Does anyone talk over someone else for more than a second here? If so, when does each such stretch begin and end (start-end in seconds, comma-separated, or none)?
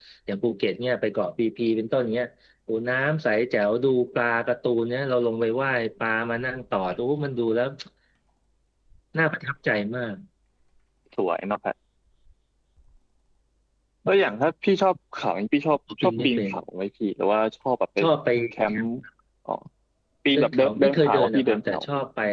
20.4-21.8